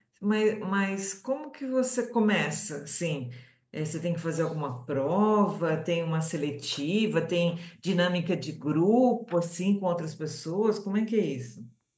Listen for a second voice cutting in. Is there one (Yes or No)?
No